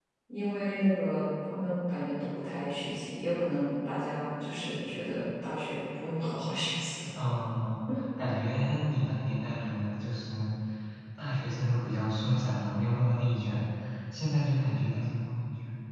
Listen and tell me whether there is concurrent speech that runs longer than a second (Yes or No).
No